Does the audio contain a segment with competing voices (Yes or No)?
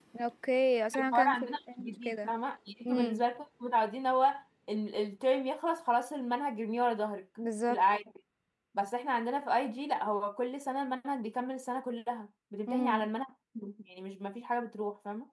Yes